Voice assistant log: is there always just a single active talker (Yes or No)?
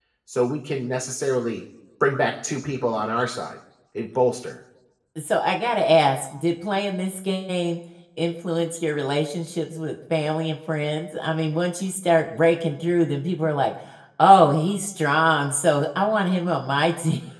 Yes